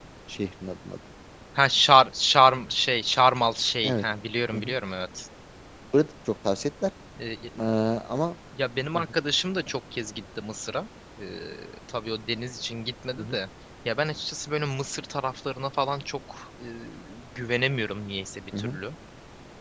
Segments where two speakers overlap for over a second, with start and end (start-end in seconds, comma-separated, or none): none